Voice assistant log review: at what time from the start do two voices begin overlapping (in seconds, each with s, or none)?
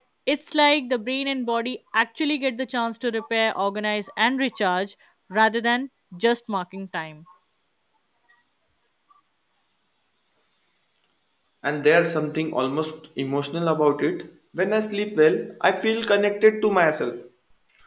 none